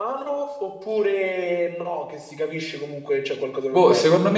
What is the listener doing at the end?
taking over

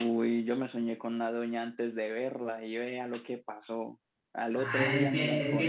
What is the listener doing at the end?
taking over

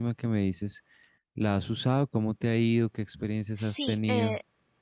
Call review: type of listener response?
taking over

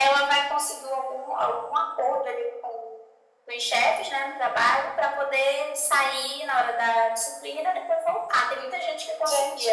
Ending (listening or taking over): taking over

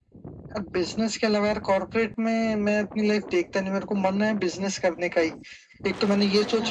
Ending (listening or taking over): listening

